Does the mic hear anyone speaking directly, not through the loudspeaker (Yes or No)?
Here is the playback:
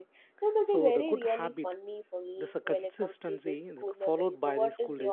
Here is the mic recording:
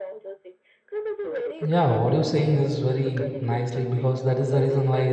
Yes